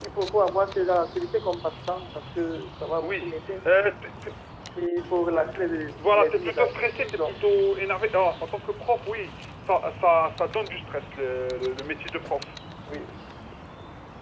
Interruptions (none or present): present